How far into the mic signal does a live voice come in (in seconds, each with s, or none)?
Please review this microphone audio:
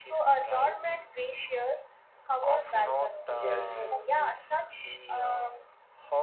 3.3 s